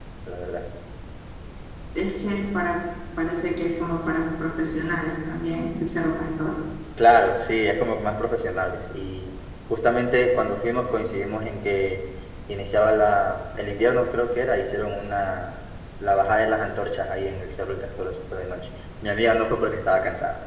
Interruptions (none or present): none